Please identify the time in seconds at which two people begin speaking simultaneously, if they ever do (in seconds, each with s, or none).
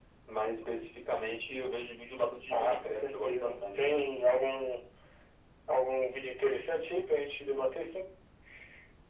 2.5 s